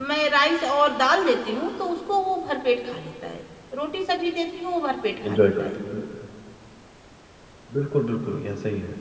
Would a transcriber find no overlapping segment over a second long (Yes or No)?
Yes